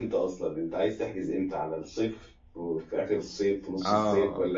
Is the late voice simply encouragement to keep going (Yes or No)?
No